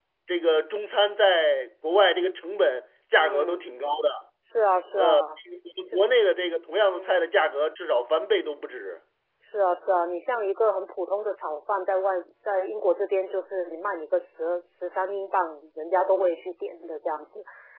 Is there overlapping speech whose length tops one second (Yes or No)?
No